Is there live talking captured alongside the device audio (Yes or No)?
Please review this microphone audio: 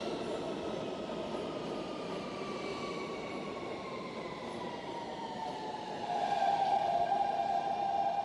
No